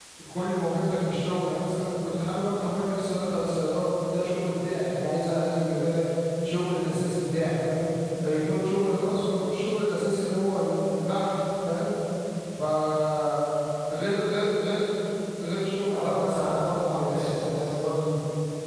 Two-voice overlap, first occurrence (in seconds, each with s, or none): 15.9 s